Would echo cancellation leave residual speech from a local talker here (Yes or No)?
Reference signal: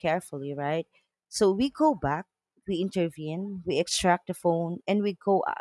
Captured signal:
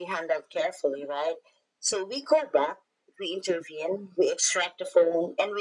No